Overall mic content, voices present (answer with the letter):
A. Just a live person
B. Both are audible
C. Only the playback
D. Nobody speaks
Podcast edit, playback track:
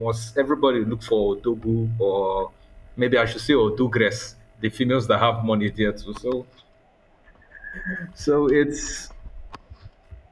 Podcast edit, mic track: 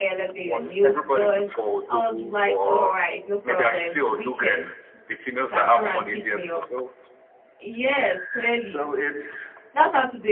B